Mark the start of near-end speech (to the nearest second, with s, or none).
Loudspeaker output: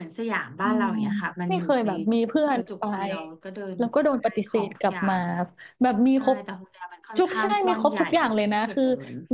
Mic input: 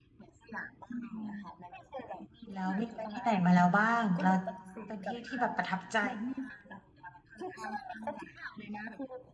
3 s